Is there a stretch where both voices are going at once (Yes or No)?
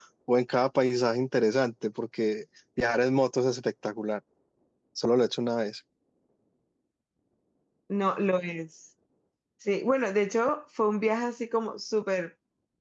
No